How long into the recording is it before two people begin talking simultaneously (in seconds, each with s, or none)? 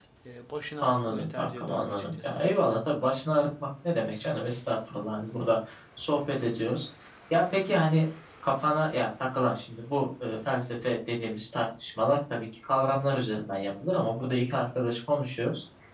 0.8 s